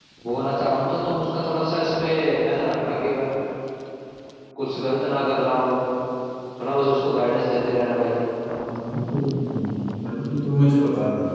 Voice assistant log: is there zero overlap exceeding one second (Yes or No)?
Yes